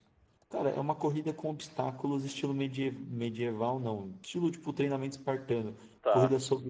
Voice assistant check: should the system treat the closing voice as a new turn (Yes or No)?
No